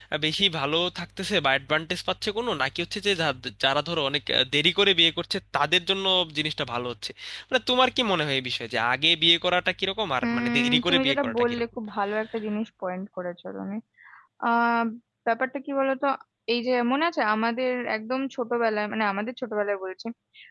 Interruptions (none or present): present